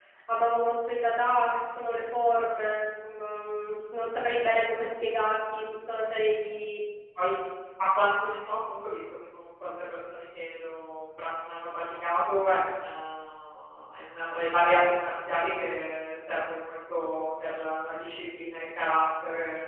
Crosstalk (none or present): none